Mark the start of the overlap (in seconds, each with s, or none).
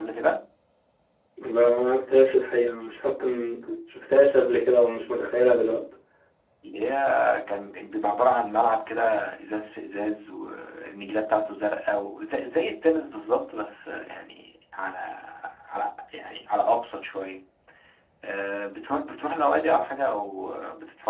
none